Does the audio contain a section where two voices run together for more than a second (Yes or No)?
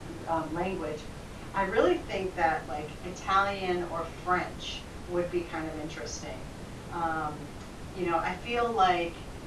No